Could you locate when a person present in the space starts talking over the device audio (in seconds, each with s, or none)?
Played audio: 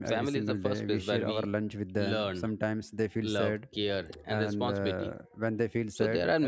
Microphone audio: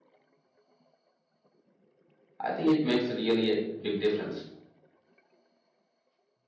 2.4 s